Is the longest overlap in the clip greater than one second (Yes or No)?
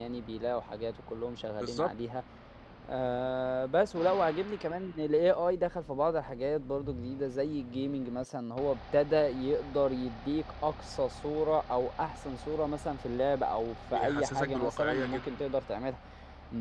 Yes